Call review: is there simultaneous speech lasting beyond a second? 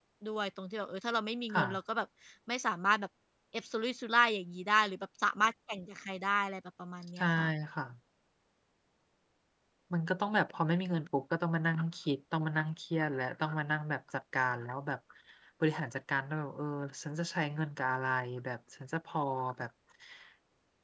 No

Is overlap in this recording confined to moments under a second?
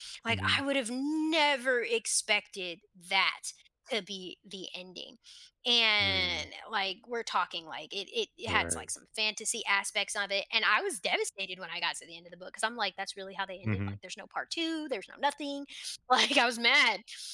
Yes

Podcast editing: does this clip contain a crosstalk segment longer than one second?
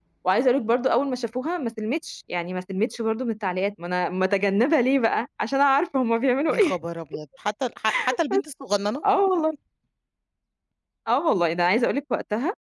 No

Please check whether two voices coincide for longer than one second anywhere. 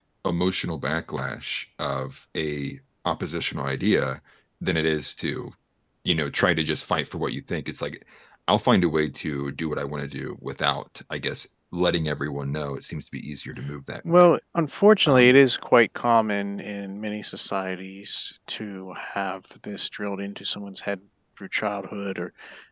No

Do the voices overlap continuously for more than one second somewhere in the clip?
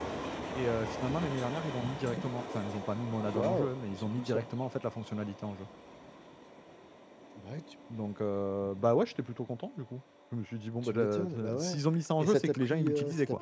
Yes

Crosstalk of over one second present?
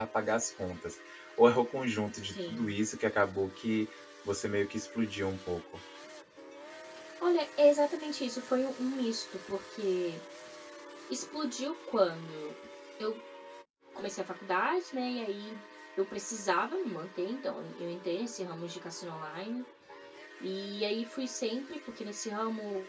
No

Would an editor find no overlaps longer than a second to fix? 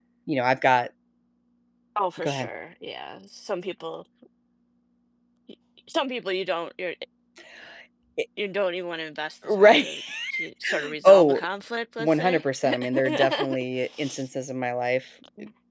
No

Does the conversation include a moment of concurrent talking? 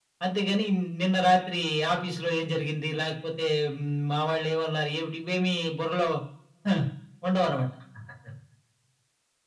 No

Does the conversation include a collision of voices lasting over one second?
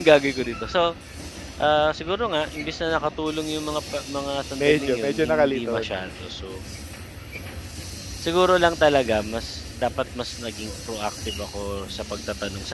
Yes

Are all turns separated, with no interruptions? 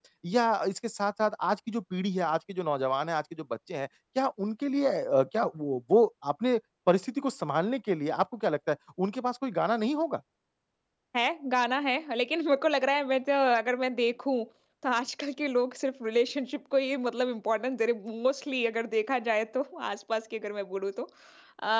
Yes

